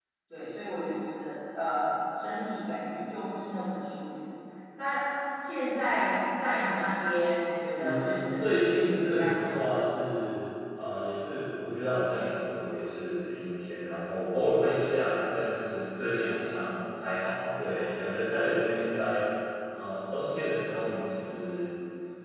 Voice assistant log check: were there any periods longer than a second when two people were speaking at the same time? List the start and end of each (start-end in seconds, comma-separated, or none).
7.7-9.7